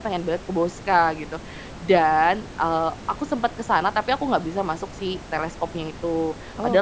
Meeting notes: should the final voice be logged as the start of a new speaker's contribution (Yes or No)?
No